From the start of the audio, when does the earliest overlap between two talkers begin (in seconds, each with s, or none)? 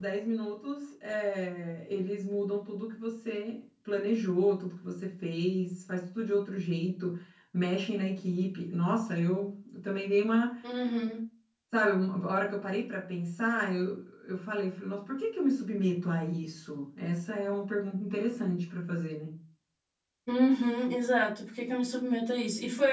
none